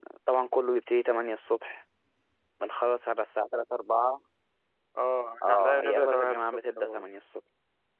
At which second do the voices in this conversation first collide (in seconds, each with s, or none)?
5.4 s